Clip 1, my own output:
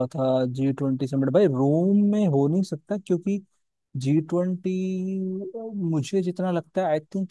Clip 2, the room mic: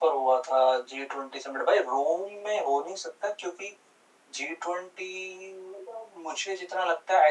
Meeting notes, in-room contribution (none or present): none